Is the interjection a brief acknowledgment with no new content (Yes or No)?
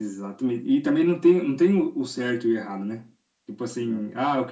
Yes